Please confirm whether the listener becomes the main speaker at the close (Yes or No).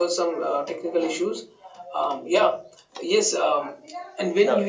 No